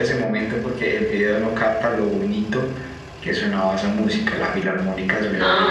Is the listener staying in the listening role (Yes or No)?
No